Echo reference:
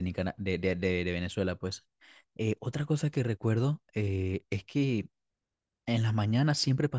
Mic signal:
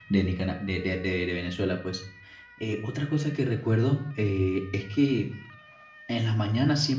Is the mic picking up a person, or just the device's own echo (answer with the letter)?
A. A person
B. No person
B